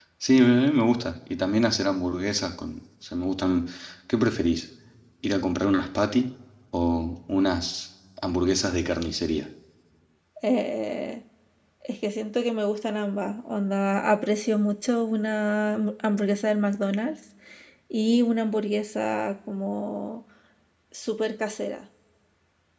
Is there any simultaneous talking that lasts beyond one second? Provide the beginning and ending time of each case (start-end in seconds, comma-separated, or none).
none